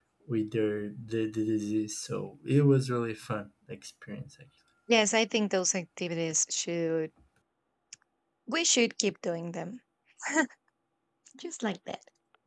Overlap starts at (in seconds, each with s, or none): none